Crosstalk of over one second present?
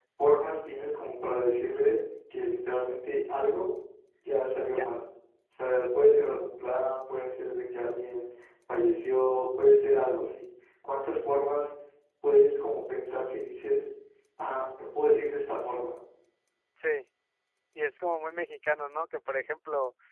No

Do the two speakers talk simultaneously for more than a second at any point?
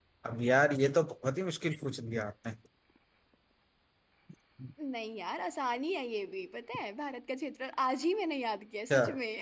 No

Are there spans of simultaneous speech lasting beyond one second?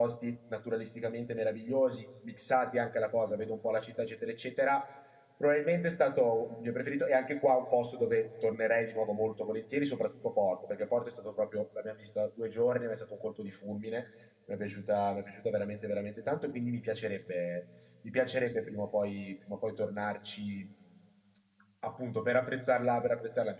No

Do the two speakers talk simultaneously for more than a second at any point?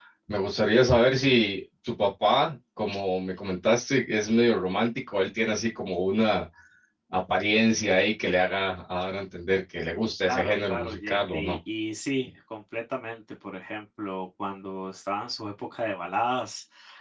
Yes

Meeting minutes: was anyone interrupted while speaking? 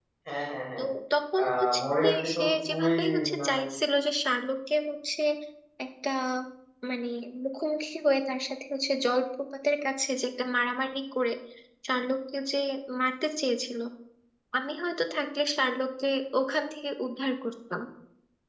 Yes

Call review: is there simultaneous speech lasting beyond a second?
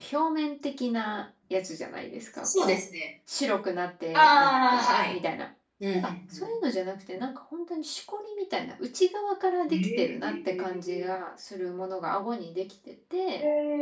Yes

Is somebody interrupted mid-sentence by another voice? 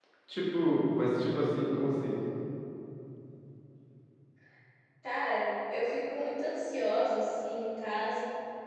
No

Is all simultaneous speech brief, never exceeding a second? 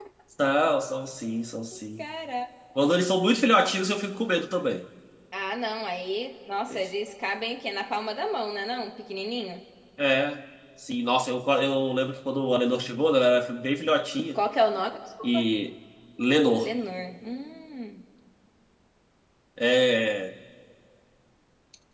Yes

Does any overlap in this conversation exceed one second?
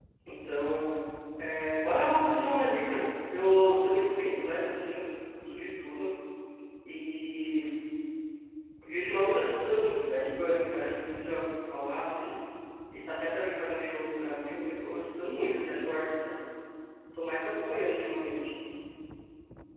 No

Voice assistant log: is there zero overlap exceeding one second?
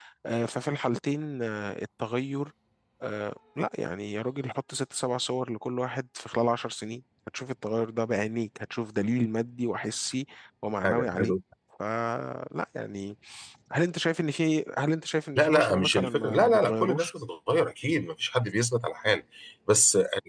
No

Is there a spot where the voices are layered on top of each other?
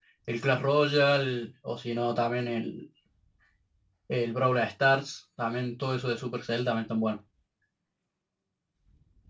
No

